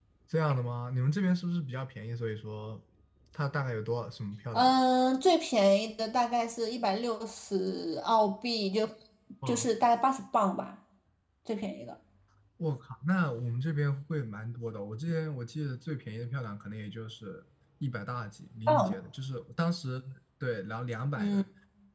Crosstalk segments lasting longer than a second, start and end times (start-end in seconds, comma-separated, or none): none